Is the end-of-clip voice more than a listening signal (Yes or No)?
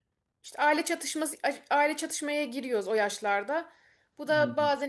No